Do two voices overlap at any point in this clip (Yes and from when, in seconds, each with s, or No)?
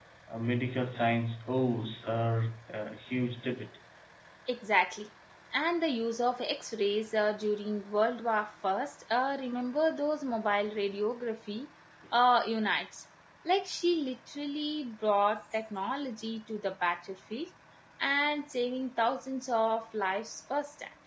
No